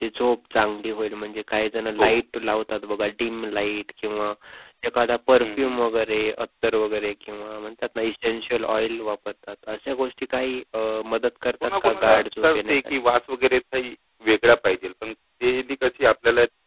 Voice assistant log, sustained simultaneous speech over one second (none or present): present